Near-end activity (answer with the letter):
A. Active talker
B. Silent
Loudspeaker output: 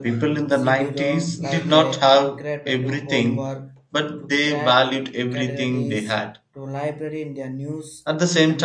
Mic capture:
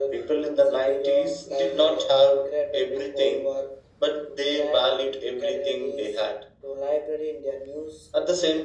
B